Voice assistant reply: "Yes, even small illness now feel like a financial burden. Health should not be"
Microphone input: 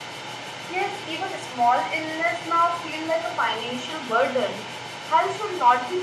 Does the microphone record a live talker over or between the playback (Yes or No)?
No